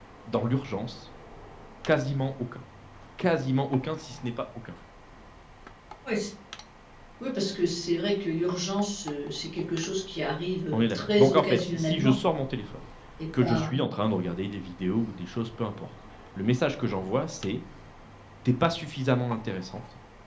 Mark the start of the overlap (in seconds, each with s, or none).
10.7 s